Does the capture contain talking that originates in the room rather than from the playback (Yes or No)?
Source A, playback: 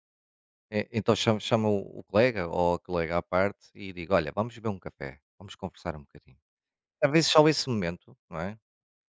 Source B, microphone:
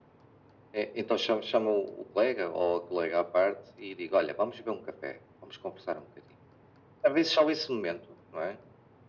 No